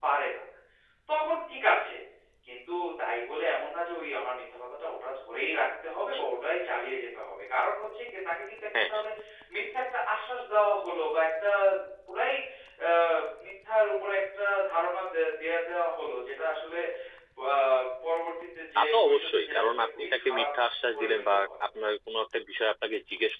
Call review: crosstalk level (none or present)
present